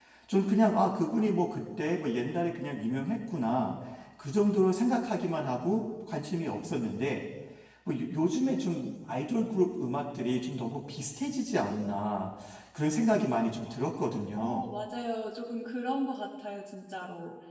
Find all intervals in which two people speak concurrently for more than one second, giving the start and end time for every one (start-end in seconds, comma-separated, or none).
none